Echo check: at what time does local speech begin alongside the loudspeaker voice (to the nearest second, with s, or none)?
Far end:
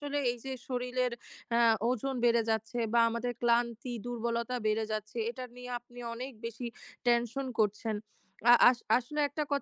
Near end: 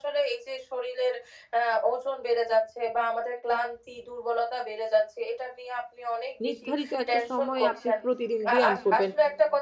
6 s